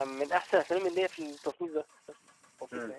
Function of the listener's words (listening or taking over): taking over